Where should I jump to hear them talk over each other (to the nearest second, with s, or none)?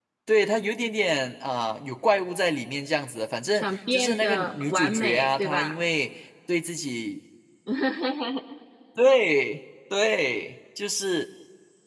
4 s